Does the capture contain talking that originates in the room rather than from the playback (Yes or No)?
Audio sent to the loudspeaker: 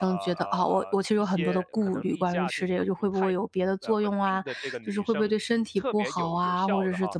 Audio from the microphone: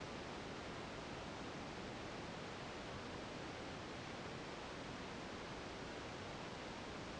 No